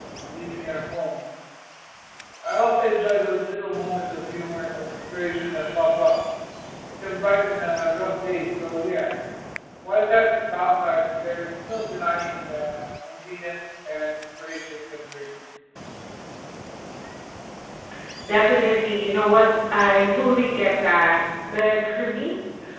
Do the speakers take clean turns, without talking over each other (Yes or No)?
Yes